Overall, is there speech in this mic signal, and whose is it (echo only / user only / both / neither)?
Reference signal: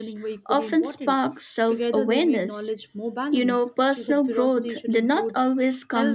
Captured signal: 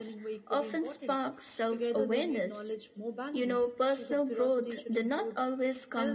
echo only